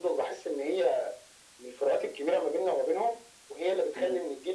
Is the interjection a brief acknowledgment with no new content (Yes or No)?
Yes